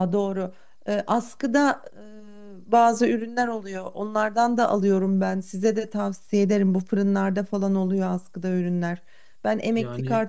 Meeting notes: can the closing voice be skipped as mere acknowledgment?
Yes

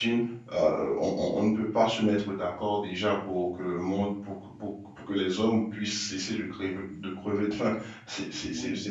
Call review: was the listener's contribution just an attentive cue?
Yes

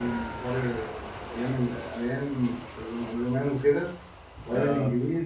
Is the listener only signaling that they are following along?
Yes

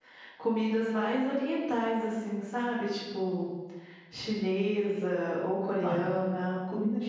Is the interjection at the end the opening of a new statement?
Yes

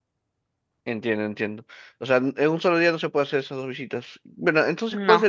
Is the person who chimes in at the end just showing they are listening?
Yes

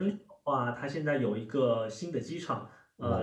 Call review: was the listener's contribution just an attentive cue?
Yes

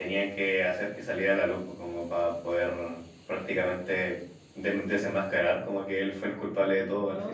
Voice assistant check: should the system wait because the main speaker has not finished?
No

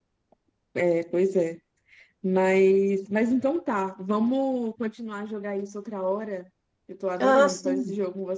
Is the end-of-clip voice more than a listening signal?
Yes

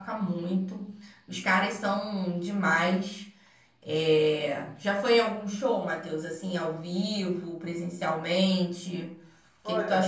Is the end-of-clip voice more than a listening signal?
Yes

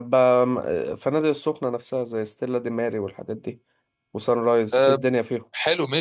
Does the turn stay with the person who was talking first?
No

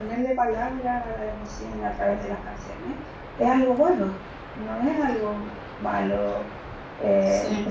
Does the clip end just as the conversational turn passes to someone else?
No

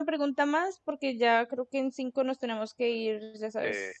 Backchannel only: No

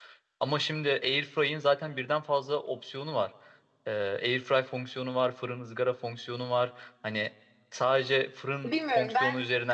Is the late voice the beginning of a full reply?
Yes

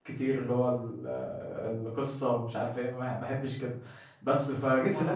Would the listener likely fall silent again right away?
Yes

